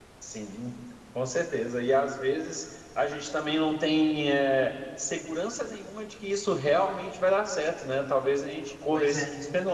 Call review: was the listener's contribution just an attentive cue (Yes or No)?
Yes